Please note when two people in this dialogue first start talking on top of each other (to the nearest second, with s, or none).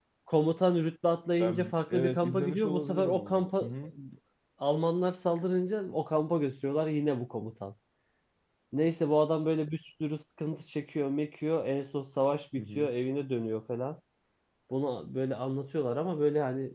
1 s